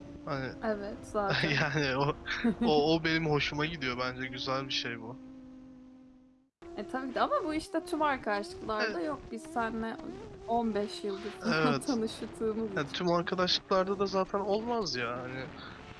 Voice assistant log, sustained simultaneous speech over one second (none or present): none